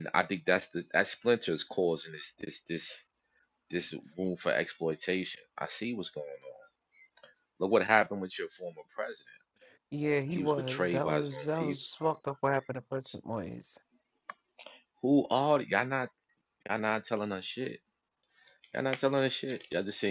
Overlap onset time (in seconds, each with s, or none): 10.3 s